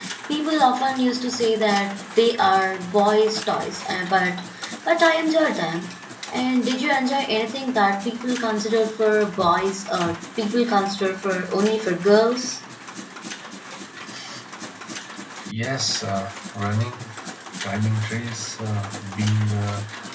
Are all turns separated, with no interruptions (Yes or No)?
Yes